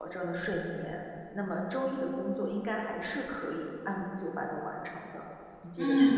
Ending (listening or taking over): taking over